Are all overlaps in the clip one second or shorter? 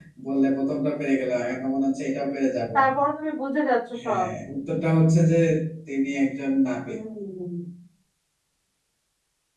Yes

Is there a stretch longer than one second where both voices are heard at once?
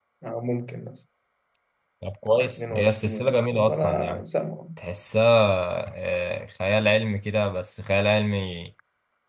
Yes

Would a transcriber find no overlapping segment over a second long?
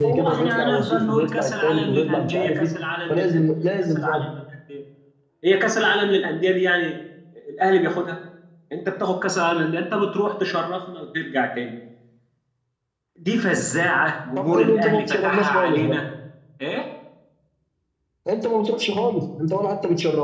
No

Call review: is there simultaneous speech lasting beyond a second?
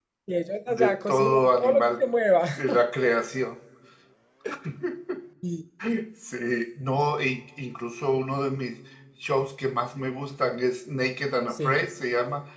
Yes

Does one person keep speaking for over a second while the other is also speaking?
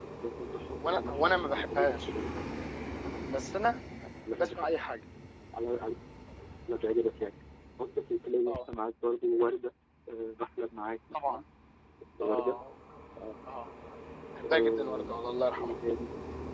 Yes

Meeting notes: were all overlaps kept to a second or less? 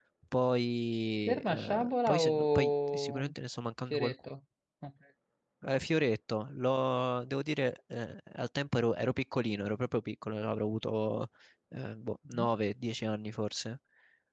No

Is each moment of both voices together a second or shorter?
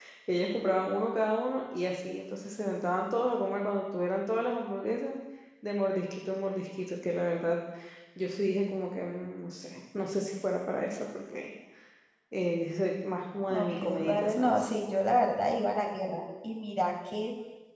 No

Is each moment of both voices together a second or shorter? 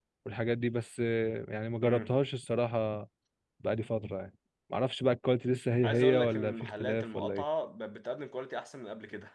No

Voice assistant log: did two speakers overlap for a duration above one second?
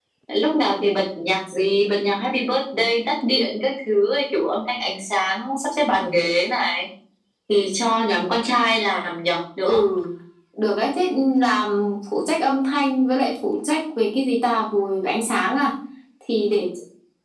No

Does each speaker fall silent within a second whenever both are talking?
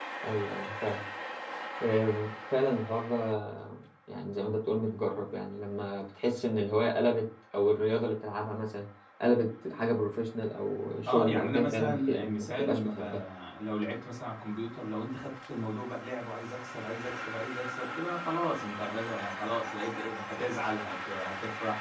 No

